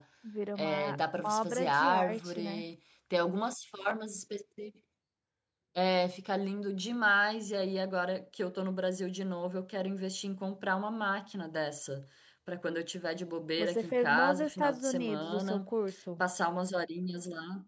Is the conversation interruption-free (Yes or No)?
No